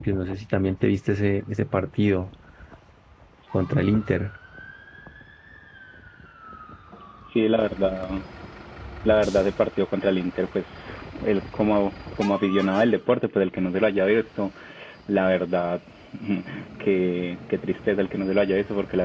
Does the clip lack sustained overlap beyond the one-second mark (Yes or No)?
Yes